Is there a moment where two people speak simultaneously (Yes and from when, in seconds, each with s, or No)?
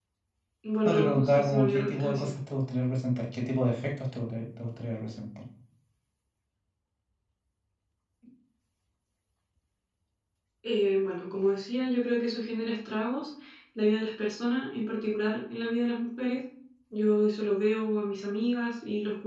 Yes, from 0.8 s